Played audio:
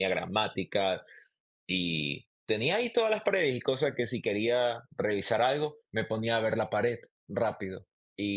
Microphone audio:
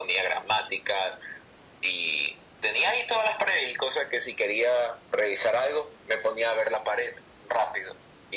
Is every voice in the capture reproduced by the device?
Yes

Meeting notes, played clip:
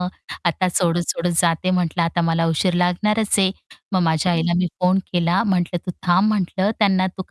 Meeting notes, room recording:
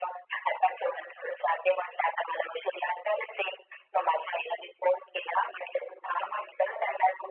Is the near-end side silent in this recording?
Yes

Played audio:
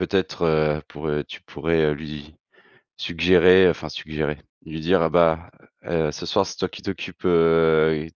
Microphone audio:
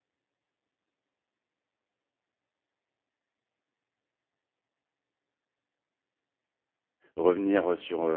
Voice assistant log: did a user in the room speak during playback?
Yes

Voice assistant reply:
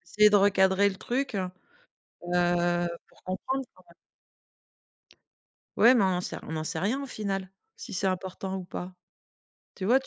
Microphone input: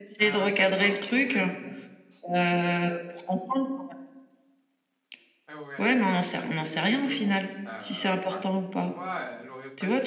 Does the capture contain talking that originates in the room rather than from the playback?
Yes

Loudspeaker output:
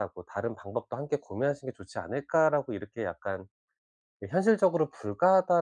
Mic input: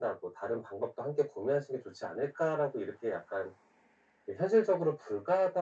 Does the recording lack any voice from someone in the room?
Yes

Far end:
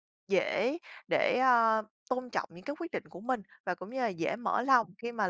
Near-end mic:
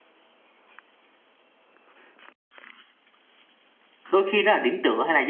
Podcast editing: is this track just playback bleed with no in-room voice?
No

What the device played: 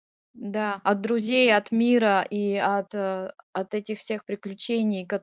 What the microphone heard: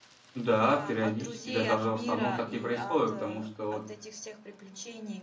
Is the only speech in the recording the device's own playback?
No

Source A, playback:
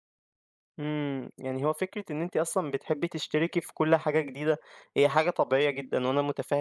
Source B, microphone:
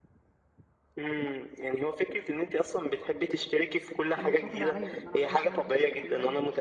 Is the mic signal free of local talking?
No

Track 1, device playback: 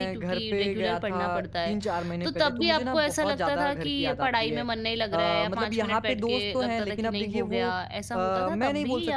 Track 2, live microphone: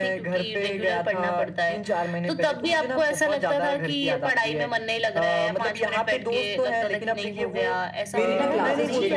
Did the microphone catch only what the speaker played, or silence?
No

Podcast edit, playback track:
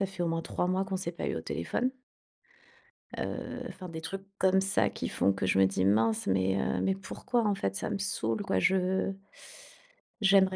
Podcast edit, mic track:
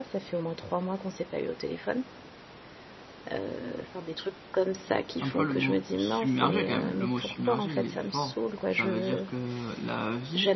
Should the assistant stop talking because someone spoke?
Yes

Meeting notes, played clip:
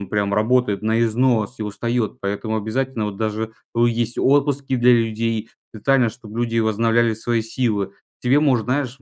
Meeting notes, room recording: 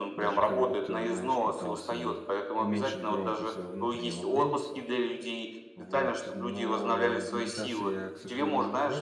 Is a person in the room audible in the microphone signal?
Yes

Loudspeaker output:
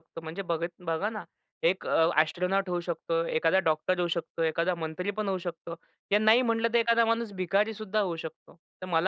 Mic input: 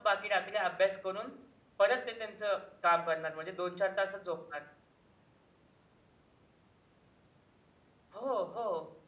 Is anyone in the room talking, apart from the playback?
Yes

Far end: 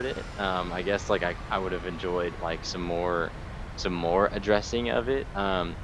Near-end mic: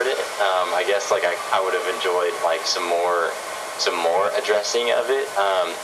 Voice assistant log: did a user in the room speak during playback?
No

